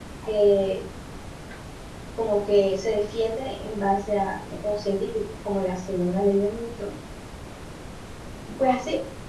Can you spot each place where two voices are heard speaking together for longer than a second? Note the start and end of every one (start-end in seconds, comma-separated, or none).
none